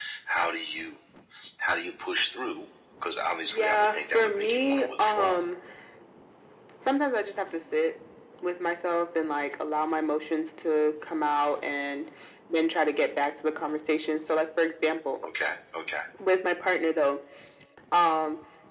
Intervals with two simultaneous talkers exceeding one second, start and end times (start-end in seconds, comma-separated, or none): 3.5-5.4